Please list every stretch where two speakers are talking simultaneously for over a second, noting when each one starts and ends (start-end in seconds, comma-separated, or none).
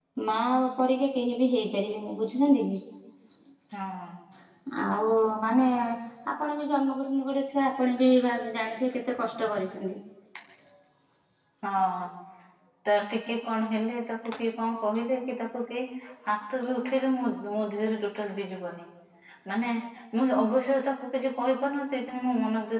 none